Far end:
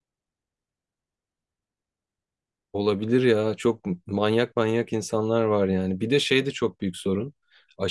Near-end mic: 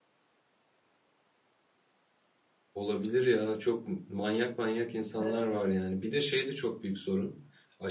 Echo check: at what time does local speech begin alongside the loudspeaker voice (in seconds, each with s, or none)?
5.2 s